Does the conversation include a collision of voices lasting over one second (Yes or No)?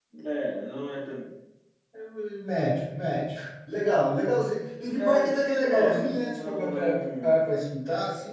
Yes